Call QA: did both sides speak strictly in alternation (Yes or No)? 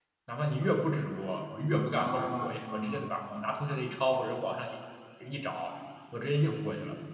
No